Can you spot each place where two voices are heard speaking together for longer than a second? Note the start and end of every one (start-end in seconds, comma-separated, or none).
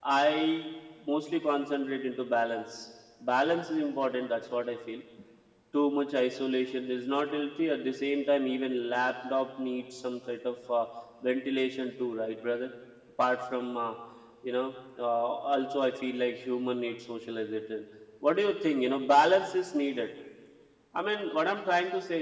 none